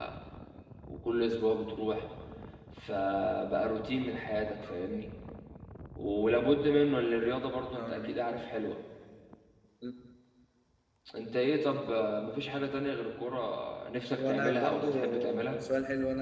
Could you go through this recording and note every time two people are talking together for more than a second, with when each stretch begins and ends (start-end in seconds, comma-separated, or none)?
14.2-15.6